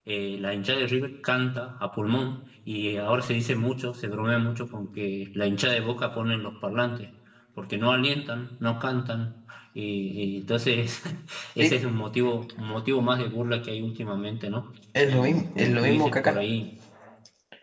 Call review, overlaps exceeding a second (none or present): present